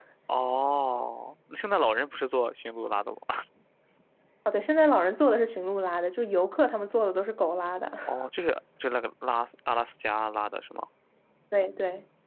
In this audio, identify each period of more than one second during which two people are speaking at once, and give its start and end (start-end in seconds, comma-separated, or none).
none